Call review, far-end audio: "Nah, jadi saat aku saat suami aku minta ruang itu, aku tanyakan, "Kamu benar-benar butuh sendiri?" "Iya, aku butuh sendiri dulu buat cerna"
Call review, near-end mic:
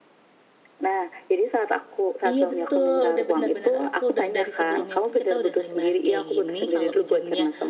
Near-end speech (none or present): present